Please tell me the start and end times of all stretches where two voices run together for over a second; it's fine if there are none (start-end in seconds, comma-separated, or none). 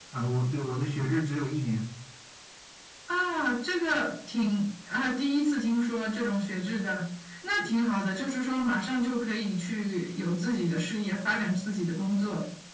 none